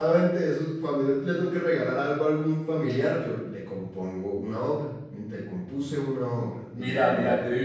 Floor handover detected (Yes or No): Yes